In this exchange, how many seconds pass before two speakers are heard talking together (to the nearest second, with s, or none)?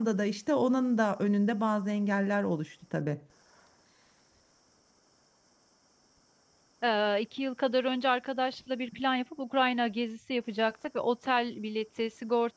none